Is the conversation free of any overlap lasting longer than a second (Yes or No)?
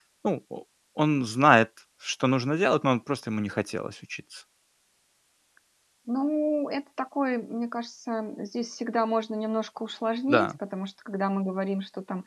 Yes